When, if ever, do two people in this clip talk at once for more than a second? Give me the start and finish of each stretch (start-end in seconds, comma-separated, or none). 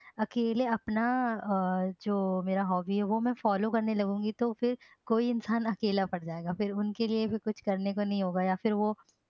none